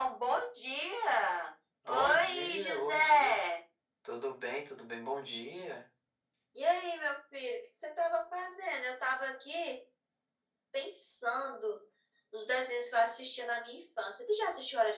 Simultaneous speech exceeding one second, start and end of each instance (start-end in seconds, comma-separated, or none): 1.9-3.4